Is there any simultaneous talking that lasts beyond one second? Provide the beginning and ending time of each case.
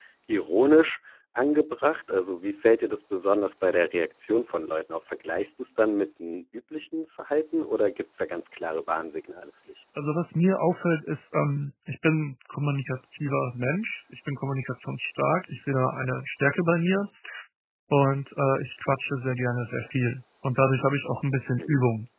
none

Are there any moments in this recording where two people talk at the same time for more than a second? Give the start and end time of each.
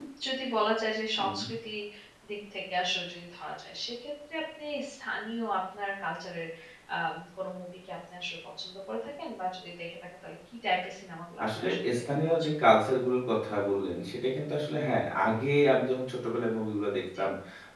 11.4-12.9

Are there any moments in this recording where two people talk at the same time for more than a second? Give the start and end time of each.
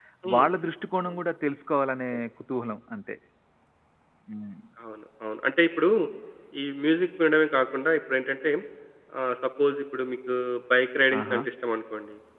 none

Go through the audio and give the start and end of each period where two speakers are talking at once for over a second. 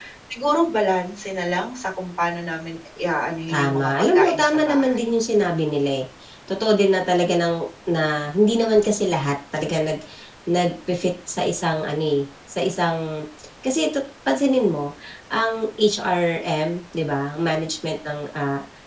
3.5-5.1

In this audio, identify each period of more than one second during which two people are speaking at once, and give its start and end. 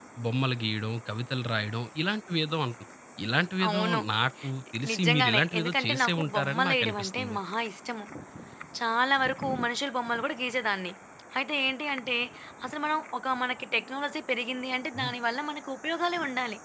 4.9-7.4

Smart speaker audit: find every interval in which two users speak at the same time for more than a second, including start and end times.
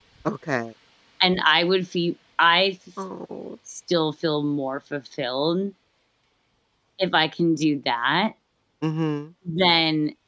none

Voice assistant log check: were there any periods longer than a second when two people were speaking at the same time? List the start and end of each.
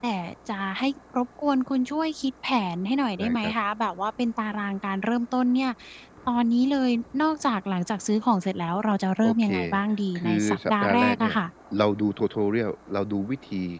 10.2-11.4

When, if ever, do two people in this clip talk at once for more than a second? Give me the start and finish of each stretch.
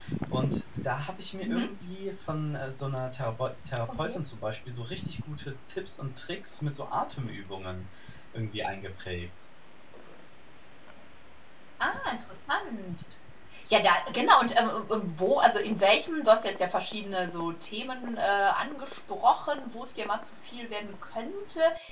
none

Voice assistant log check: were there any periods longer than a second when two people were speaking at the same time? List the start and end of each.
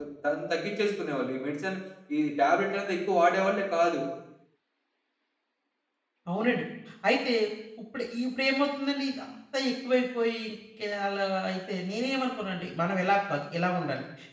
none

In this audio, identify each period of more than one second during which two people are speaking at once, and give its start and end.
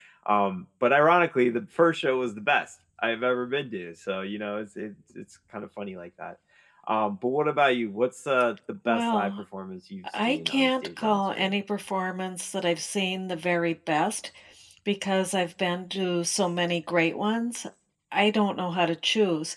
10.2-11.5

